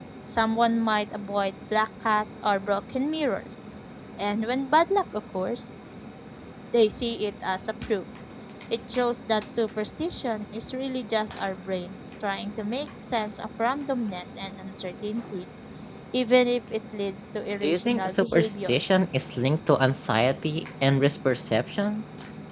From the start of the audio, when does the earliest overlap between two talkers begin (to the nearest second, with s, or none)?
18 s